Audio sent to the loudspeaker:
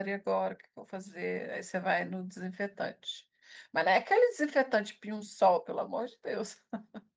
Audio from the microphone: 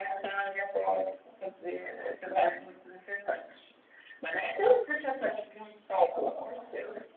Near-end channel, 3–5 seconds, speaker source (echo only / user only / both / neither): echo only